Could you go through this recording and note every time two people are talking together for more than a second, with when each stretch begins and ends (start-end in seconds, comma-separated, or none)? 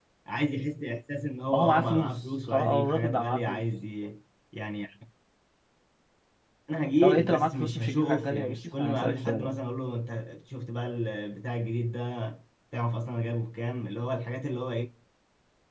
1.5-3.6, 7.0-9.5